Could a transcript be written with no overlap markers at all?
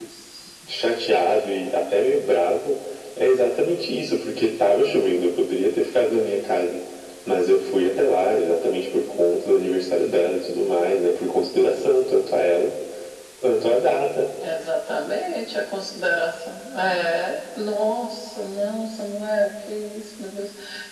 Yes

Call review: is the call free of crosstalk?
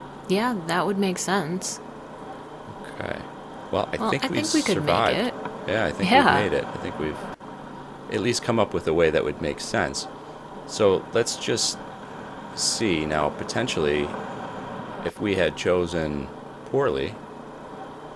No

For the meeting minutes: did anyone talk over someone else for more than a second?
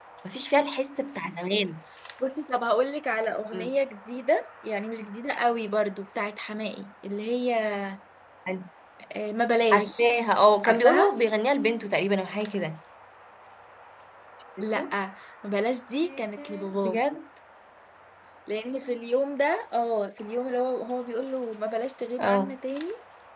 No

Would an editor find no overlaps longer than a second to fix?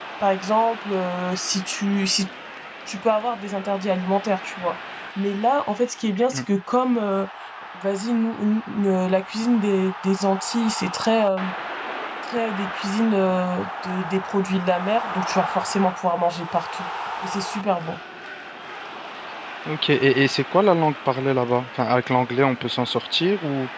Yes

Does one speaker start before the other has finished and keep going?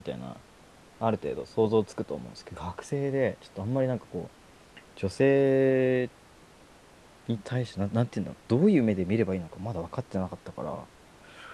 No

